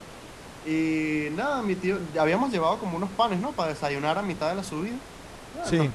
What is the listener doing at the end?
listening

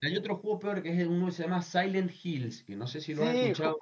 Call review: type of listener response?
taking over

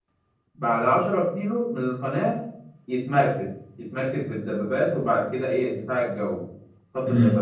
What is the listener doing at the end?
listening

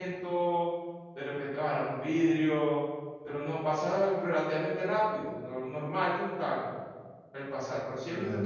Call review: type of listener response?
taking over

